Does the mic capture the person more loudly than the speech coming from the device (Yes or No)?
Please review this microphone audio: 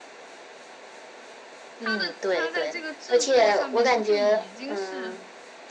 No